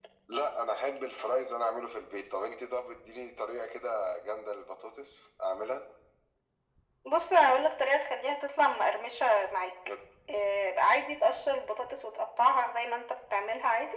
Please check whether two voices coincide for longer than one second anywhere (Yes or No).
No